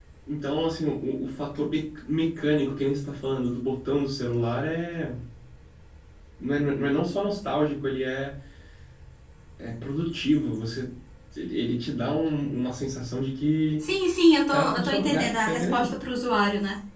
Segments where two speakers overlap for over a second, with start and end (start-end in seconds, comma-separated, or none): 14.5-15.9